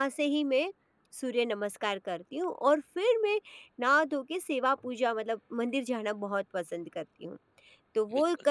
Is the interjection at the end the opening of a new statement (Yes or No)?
No